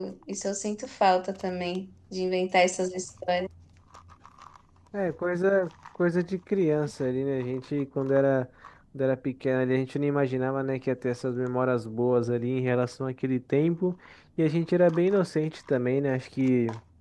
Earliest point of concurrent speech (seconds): none

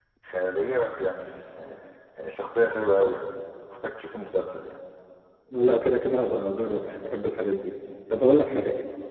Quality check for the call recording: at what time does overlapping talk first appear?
none

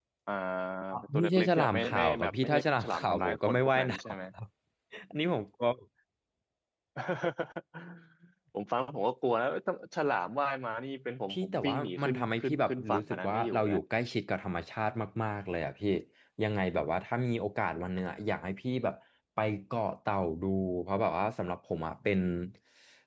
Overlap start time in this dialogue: 1.0 s

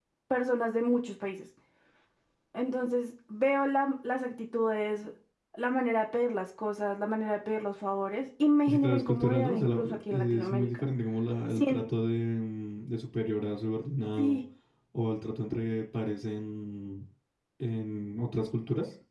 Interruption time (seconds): 8.7 s

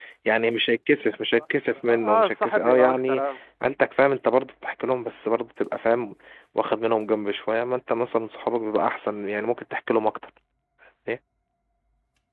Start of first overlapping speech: 1.9 s

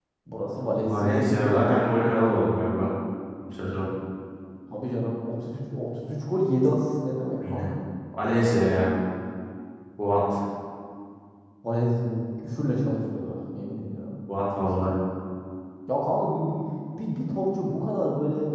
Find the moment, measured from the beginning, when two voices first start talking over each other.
0.8 s

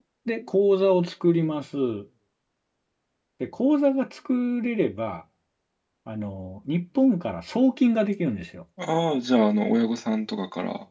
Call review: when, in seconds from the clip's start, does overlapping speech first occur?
none

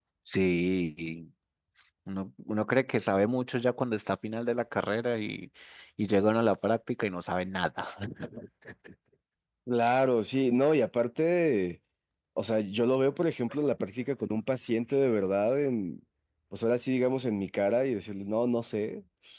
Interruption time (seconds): none

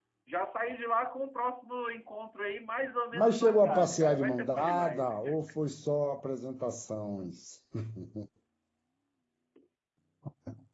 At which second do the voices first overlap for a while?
3.1 s

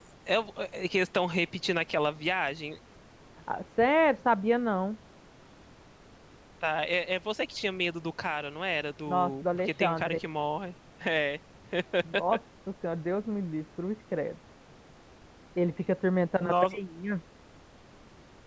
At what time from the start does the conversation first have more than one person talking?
9.1 s

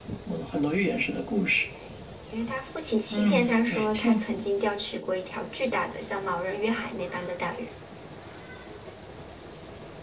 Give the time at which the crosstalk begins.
3.1 s

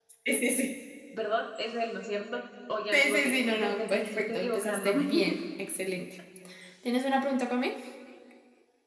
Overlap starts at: 2.9 s

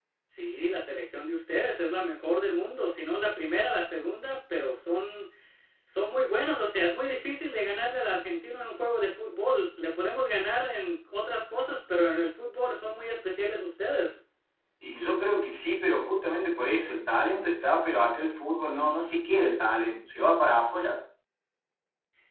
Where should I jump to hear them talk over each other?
none

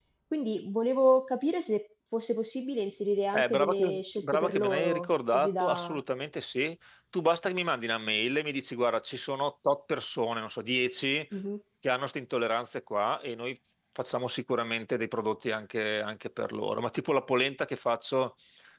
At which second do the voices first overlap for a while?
3.3 s

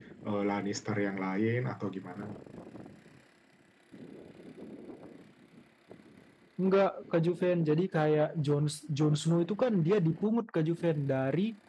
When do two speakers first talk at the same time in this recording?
none

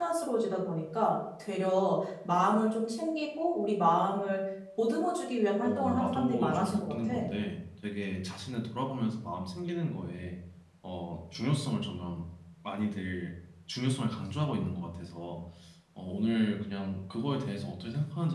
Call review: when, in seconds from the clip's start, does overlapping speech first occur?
5.6 s

